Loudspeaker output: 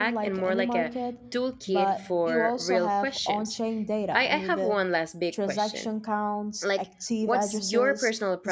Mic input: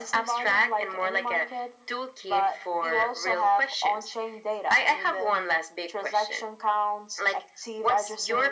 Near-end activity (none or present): none